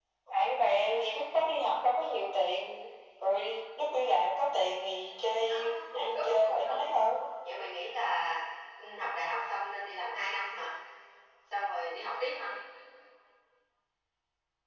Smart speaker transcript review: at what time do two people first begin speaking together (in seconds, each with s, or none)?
5.2 s